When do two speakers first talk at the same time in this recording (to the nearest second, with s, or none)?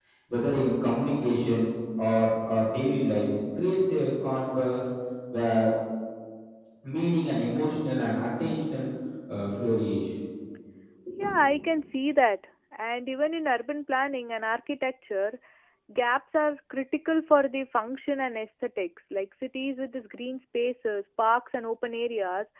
none